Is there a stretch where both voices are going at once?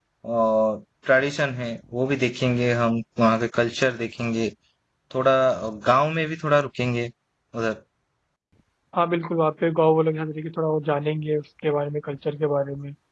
No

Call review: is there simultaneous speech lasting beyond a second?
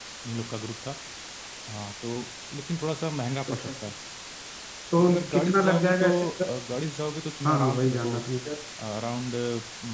Yes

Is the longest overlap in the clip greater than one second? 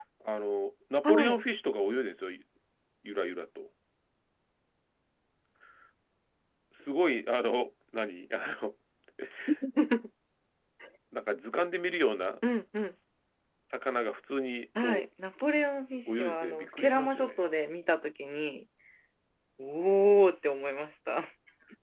Yes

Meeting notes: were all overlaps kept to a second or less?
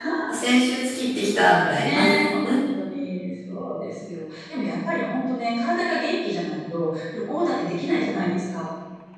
Yes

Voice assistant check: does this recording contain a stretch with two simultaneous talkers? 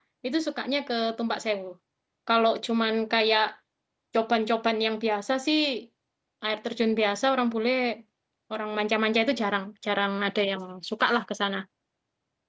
No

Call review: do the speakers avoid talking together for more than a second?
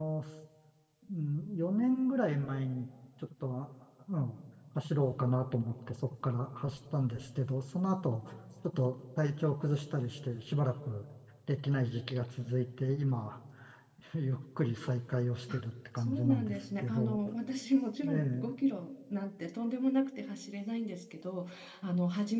No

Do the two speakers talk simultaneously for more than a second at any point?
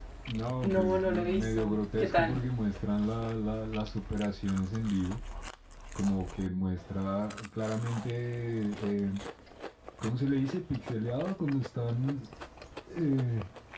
Yes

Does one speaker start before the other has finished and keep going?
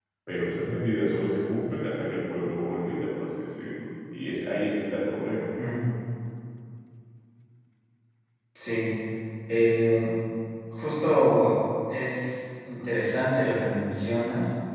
No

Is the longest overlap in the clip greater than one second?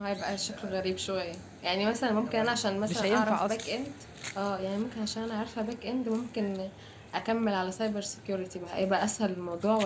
Yes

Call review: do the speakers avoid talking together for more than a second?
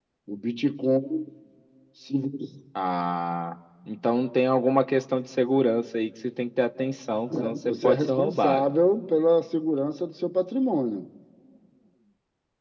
No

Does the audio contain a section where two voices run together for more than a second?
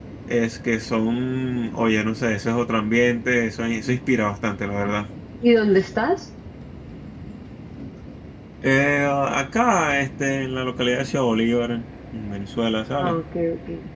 No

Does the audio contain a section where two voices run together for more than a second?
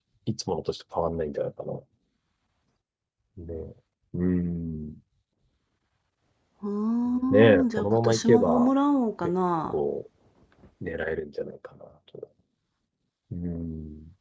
Yes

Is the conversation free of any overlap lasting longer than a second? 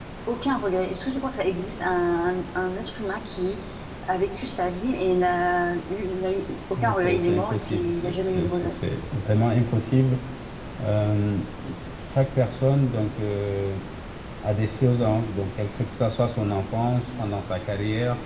No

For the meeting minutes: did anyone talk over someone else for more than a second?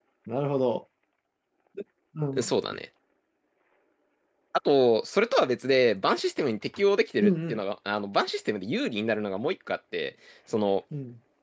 No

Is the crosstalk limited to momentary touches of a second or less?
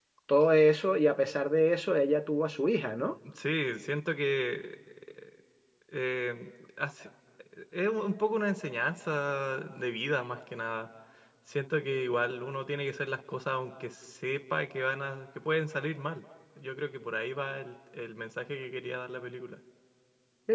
Yes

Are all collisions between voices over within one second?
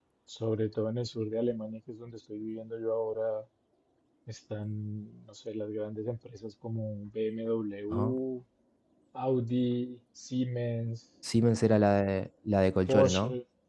Yes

